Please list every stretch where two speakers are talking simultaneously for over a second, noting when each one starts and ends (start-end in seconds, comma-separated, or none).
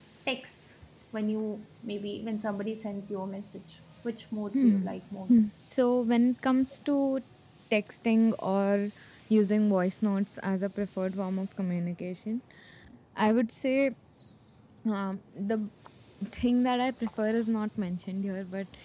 none